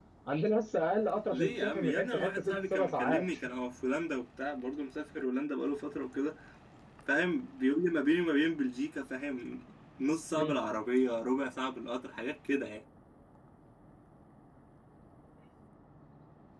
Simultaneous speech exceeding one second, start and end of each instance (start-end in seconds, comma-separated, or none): 1.3-3.3